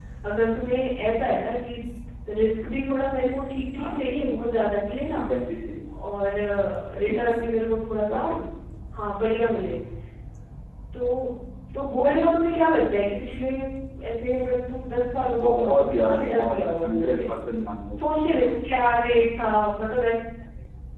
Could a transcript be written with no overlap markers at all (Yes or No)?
No